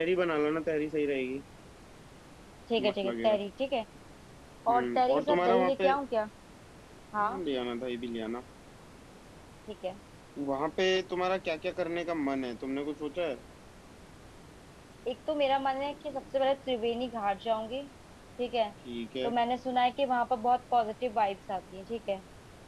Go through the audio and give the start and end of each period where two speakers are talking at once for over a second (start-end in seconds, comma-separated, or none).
4.7-5.9